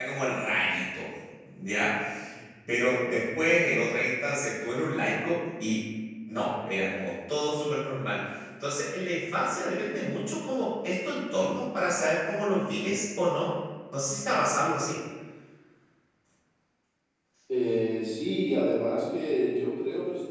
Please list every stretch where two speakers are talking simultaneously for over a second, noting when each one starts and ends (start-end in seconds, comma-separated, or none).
none